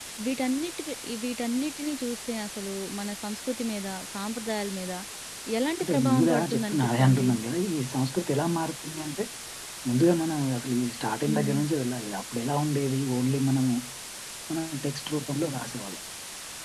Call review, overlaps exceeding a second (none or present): present